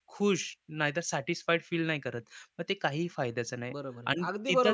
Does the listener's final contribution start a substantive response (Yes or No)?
Yes